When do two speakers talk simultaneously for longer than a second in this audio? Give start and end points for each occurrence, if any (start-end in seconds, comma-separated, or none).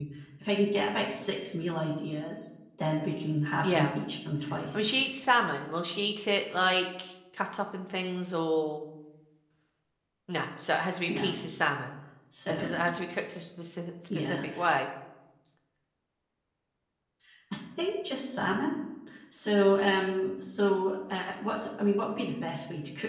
none